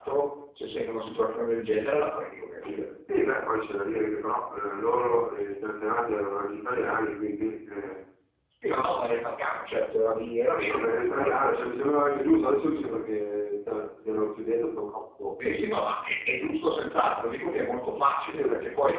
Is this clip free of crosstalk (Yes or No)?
No